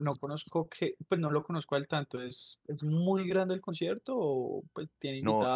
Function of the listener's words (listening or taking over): taking over